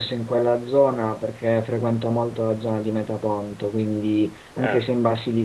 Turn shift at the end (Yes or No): No